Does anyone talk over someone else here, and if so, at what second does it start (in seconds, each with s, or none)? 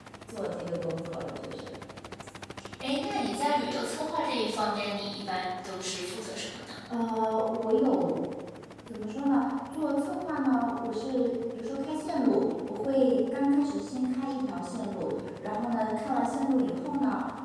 none